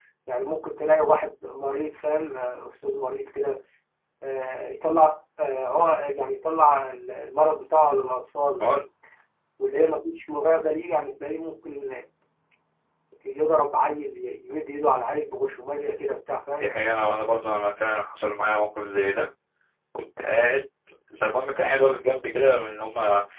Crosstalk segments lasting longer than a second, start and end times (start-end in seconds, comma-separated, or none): none